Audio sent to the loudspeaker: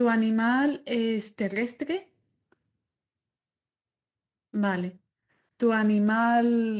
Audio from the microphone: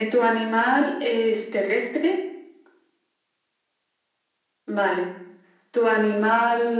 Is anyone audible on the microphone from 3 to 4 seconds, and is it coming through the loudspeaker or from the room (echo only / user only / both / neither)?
neither